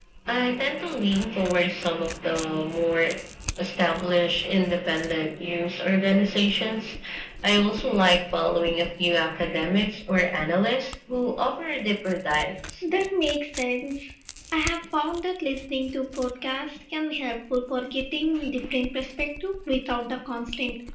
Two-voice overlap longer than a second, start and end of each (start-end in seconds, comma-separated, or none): none